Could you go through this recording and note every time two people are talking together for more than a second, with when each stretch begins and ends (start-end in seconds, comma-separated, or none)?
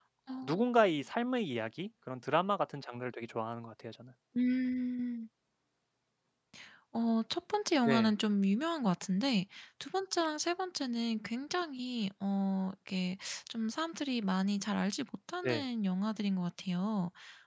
none